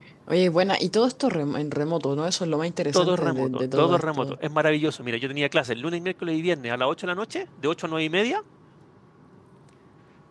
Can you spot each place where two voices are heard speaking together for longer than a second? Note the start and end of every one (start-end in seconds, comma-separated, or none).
2.9-4.4